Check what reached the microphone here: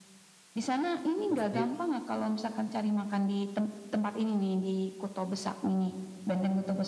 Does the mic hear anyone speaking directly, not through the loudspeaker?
Yes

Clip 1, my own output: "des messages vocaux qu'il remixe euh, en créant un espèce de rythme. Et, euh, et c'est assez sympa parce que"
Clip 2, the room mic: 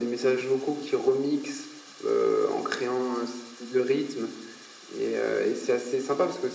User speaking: No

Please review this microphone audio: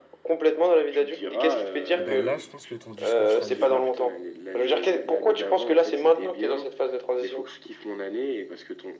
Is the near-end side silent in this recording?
No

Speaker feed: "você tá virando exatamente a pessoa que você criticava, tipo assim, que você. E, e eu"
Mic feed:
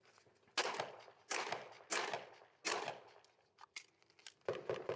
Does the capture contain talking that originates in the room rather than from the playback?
No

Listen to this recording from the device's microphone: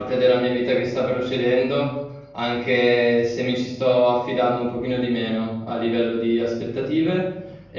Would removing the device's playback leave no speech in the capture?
No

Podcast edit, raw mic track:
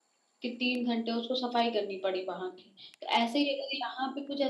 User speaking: Yes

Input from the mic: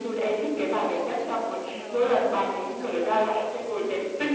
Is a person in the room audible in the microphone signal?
Yes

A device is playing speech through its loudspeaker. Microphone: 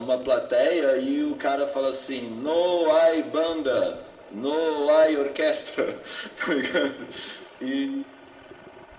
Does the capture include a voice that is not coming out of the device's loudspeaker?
No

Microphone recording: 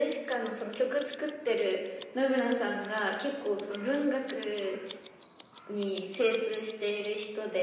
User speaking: No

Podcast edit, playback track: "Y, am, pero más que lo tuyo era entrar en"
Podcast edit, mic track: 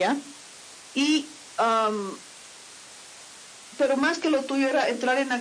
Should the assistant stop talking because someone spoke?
No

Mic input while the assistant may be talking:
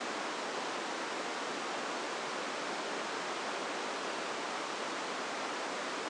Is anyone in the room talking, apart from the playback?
No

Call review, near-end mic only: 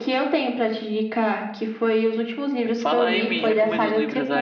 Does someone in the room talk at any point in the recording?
Yes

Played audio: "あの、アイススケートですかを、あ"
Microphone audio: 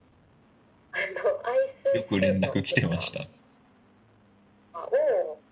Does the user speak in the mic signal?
Yes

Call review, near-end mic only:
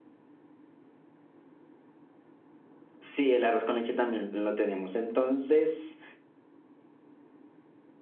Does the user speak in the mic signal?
Yes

